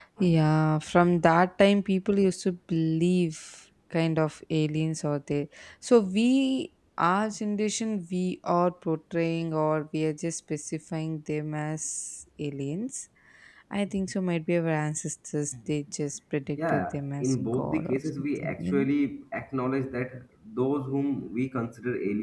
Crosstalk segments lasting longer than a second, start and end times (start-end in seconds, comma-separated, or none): 16.6-18.9